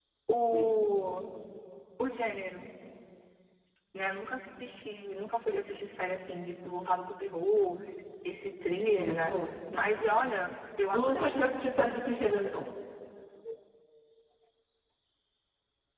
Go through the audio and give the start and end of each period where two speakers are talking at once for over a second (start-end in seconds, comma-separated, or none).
none